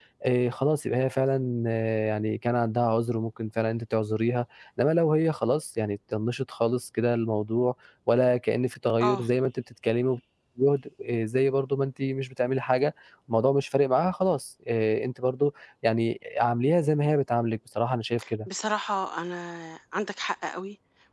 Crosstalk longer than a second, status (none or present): none